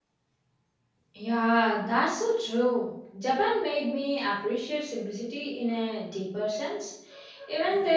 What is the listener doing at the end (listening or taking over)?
listening